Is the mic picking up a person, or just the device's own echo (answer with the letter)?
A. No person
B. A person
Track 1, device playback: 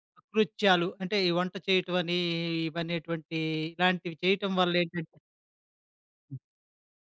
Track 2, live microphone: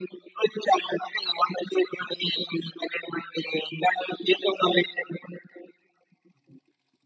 A